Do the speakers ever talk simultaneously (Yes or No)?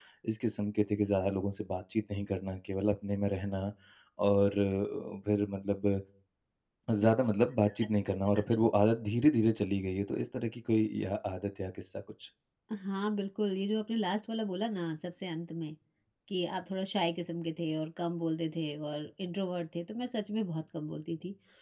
No